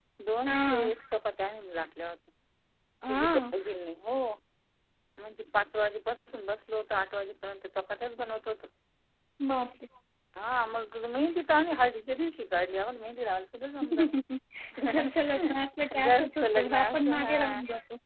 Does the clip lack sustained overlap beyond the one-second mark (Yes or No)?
No